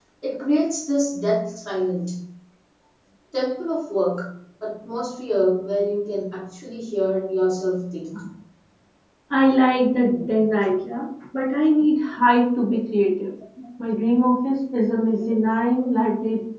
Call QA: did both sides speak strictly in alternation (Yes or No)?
Yes